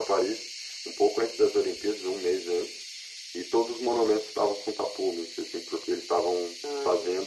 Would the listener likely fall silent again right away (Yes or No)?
Yes